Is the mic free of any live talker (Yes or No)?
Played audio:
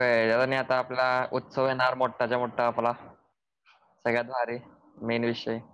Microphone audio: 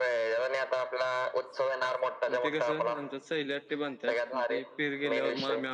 No